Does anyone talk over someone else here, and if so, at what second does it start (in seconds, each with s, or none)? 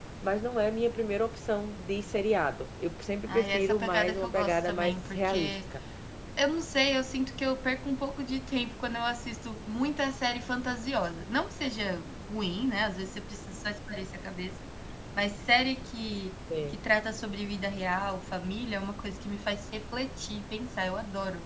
3.3 s